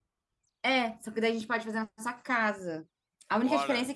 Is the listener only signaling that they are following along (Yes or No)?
Yes